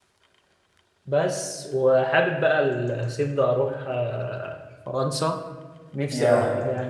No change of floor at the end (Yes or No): Yes